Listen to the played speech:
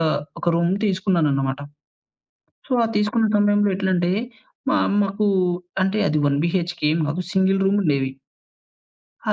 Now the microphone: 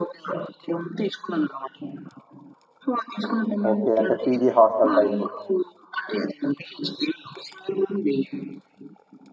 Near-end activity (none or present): present